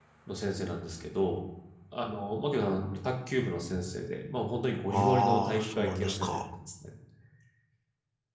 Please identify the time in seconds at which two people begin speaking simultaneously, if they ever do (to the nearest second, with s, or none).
5 s